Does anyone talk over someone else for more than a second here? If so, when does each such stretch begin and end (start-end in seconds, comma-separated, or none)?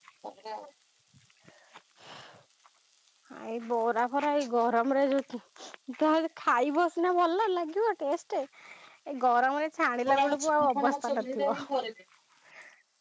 10.1-11.6